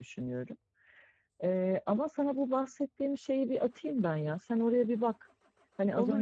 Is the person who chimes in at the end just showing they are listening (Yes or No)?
No